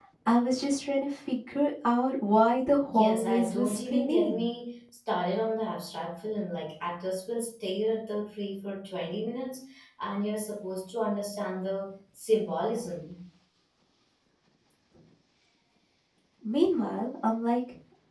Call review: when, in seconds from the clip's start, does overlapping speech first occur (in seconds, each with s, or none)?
2.9 s